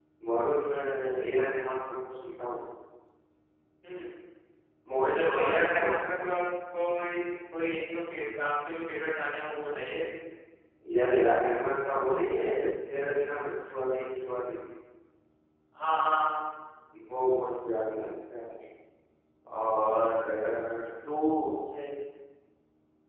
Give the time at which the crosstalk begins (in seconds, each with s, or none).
5.1 s